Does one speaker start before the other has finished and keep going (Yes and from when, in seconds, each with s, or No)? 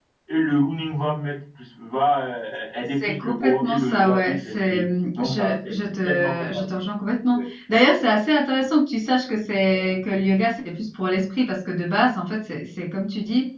Yes, from 2.8 s